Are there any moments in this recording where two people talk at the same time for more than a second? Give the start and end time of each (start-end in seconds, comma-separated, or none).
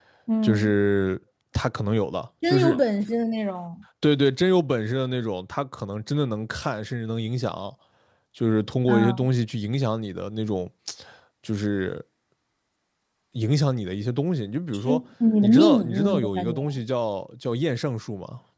15.4-16.7